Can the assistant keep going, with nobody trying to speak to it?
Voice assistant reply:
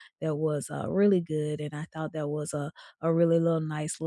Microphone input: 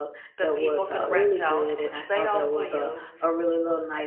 No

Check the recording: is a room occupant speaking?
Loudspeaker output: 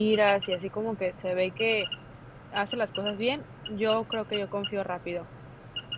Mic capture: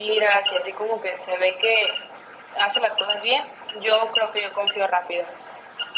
No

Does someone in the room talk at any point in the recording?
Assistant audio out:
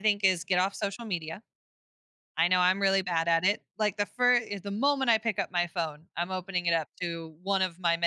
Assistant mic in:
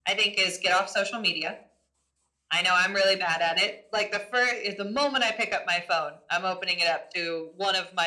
No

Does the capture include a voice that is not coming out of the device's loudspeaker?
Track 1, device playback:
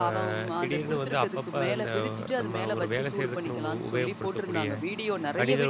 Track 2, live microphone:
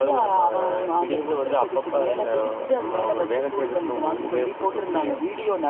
No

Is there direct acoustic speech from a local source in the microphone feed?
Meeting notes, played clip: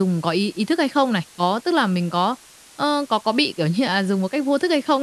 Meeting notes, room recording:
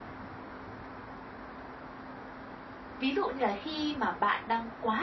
Yes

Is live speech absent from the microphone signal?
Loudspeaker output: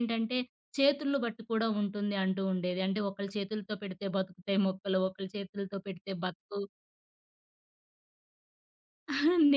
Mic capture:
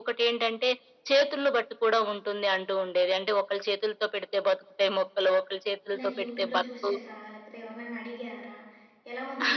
No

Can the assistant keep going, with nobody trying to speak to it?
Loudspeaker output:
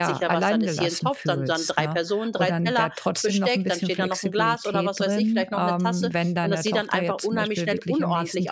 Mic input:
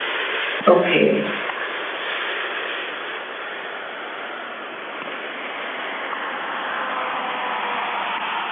No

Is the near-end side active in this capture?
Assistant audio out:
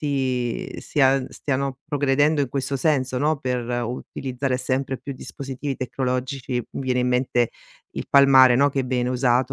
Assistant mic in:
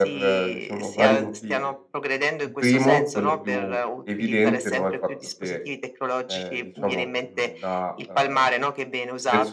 Yes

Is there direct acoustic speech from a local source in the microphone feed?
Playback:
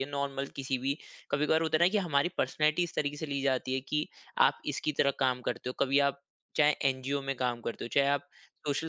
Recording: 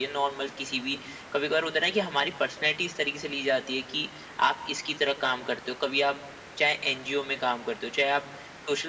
No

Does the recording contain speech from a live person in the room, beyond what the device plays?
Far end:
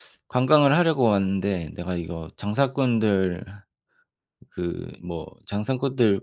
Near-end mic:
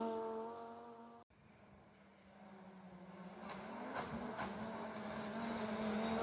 No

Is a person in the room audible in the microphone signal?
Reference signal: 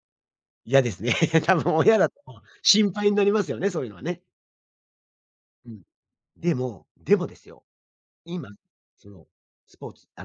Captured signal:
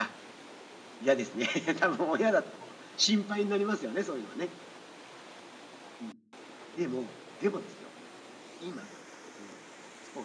No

